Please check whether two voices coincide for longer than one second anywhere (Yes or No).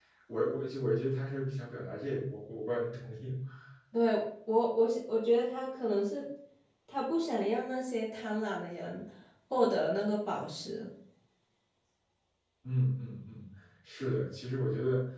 No